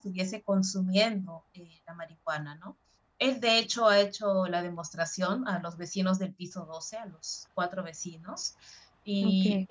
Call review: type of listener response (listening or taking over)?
listening